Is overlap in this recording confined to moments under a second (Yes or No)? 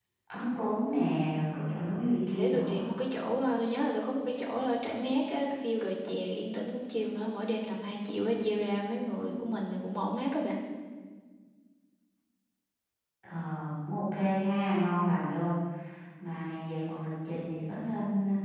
Yes